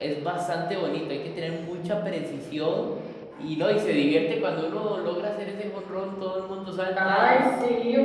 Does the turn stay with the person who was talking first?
No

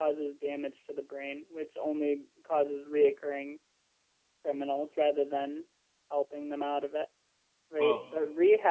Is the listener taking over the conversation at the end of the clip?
No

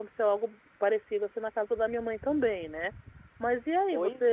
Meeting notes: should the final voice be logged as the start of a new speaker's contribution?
No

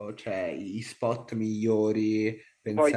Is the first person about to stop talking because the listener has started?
Yes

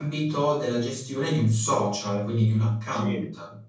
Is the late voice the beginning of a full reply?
Yes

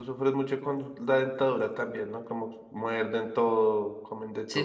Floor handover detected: Yes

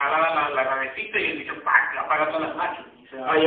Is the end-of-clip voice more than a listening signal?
Yes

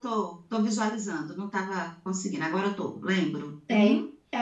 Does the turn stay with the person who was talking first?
No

